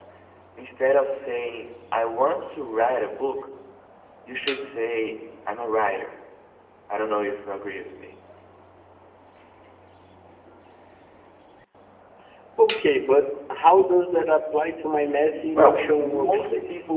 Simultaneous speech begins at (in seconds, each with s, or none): 15.5 s